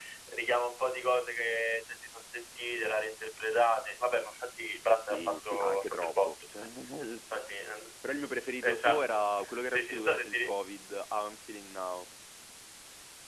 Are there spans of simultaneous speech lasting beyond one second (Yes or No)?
Yes